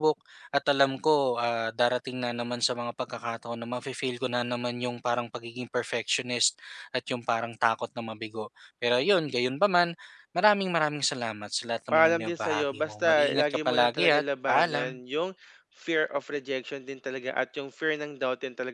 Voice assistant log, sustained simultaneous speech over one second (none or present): present